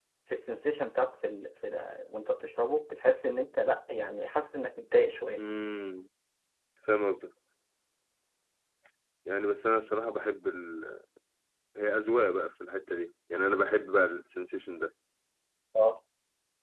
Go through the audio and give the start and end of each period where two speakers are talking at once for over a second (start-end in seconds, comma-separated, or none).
none